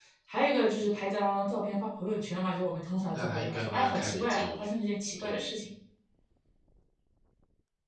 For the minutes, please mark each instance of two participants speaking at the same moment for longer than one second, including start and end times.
3.1-4.7

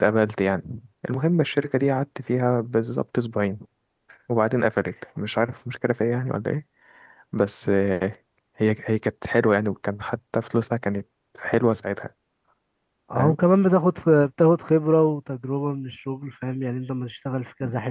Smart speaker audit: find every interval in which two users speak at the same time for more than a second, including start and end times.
none

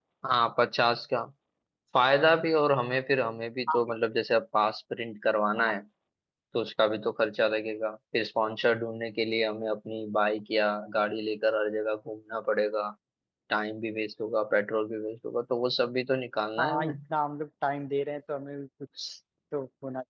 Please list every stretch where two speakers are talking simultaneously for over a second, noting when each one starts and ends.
none

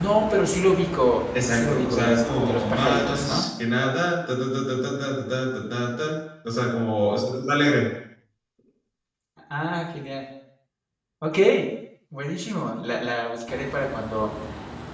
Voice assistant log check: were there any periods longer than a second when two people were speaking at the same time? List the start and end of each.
1.4-3.5

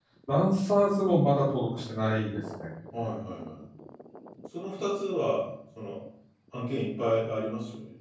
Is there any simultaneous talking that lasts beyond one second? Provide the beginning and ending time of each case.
none

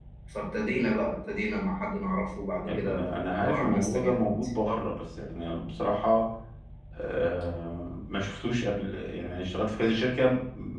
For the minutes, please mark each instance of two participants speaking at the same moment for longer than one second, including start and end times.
2.7-4.5

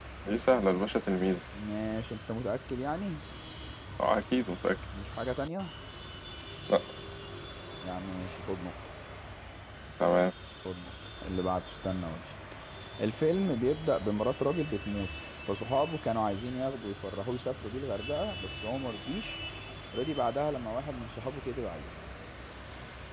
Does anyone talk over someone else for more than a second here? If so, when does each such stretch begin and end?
none

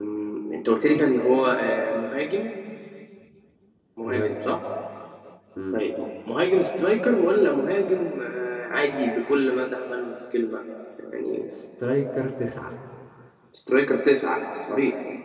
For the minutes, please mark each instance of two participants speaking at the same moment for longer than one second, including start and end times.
none

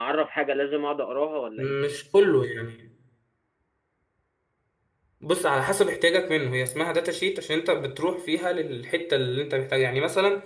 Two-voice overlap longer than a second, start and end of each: none

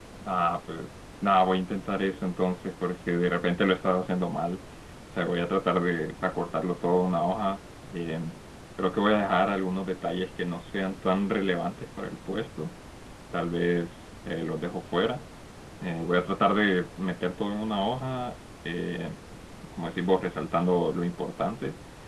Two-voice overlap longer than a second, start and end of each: none

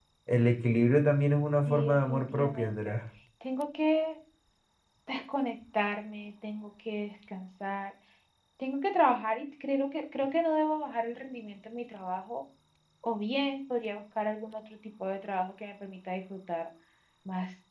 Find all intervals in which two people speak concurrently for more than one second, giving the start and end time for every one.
1.7-2.9

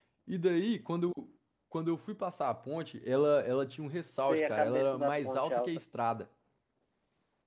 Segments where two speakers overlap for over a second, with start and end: 4.2-5.8

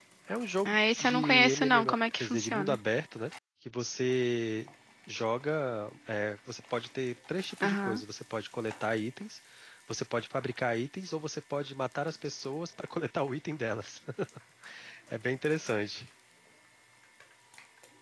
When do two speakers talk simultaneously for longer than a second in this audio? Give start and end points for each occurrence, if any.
0.7-2.8

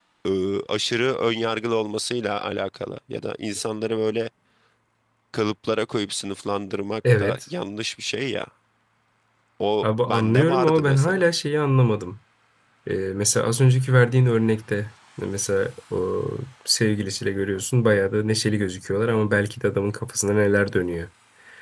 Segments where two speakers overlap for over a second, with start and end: 9.8-11.2

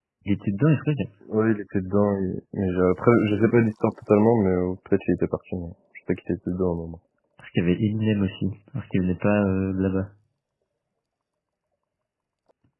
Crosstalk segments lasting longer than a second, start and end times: none

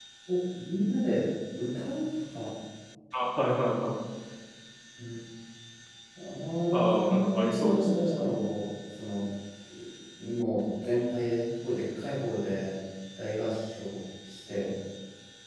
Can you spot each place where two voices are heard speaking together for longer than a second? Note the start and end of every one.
6.7-8.5

